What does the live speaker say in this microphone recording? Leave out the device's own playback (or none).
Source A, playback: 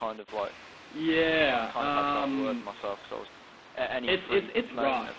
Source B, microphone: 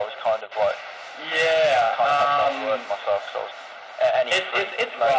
none